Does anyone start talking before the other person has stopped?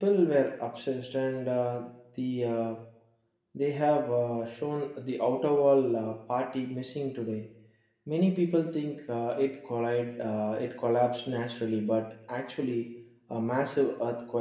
No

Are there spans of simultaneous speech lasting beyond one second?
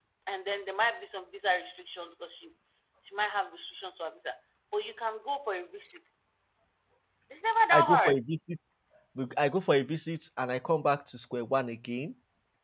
No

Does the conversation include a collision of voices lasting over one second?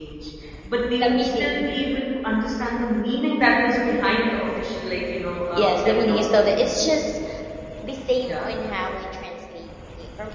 Yes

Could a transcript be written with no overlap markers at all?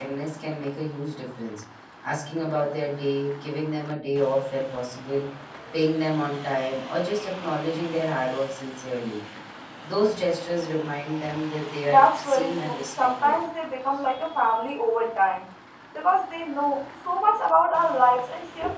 No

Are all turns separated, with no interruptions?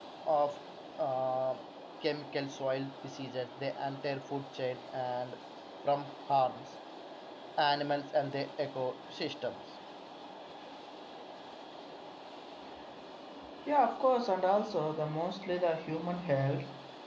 Yes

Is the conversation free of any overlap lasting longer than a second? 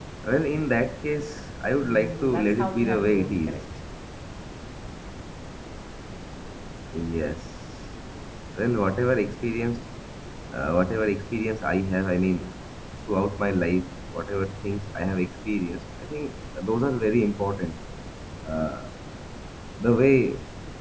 No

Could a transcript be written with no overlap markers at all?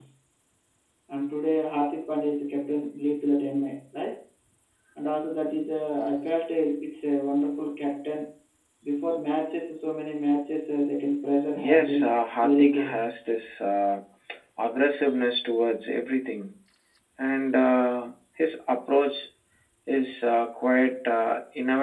No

